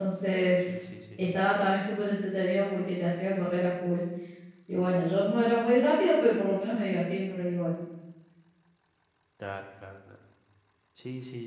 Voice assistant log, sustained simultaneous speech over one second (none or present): none